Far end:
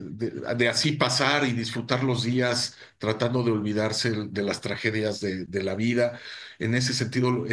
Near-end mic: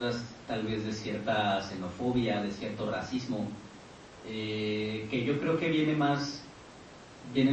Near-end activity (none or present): present